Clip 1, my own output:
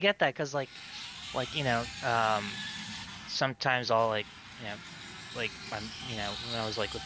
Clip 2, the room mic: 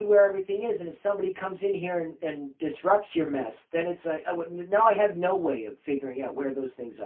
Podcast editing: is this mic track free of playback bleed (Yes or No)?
Yes